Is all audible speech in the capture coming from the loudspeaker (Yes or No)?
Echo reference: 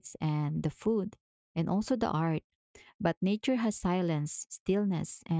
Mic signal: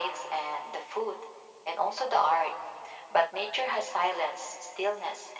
Yes